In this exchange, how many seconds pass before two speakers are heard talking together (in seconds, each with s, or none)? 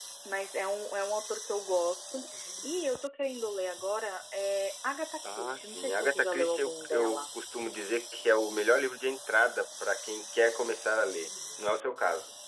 5.2 s